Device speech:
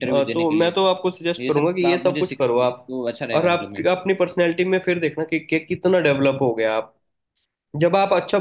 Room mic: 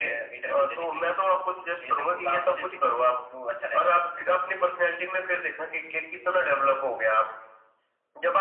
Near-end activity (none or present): none